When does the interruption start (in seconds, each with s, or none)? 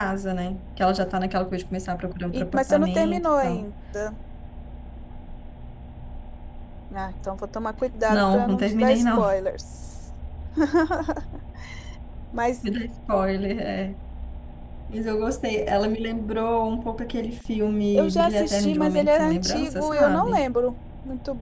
2.3 s